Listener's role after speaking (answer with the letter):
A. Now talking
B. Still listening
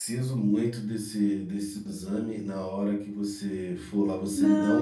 A